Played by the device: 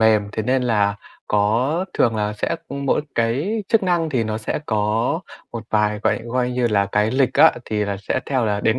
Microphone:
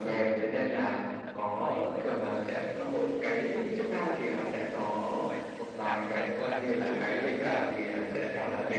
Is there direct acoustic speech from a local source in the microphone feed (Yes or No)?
Yes